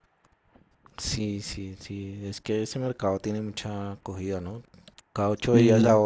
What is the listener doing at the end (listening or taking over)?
listening